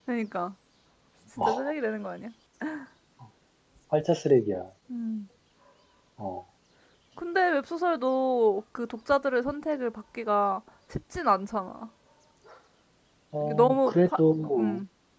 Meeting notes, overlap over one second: present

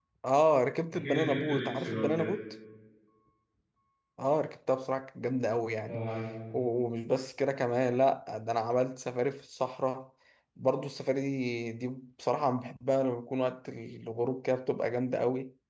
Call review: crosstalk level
present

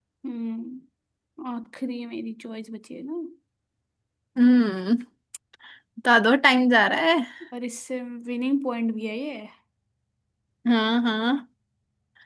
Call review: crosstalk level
none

